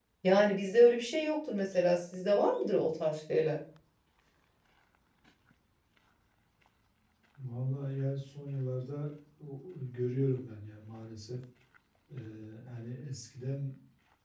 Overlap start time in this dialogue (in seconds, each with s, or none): none